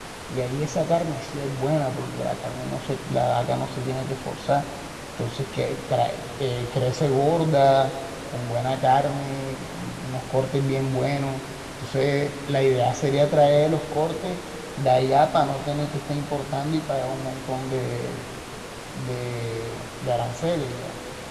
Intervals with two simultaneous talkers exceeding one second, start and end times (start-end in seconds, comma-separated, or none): none